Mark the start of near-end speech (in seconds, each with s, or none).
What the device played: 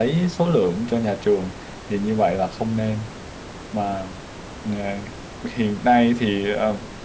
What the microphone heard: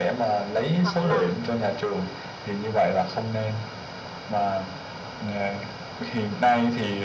0.8 s